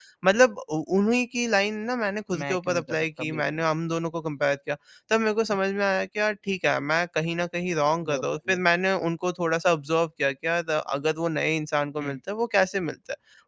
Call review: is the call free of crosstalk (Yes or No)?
No